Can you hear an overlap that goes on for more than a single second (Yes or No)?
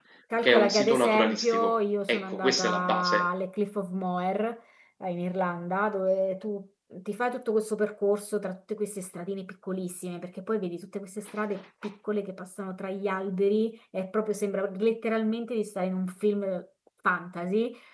Yes